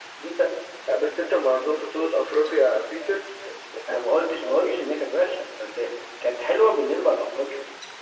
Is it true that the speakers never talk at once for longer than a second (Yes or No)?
Yes